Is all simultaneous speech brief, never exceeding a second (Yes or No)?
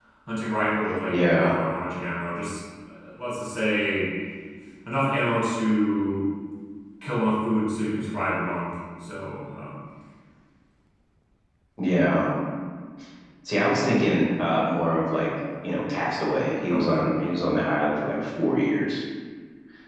Yes